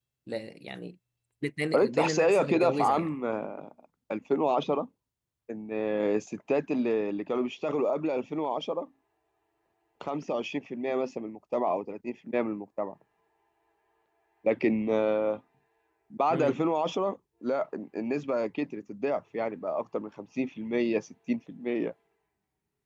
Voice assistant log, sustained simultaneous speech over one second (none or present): present